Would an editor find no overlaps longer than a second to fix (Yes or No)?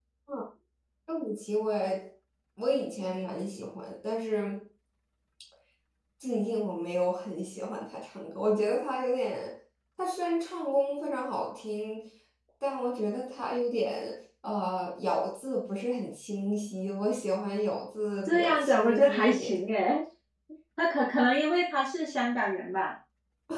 No